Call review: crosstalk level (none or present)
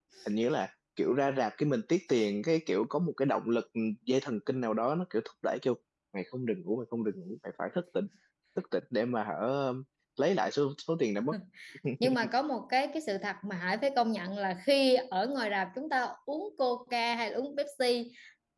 none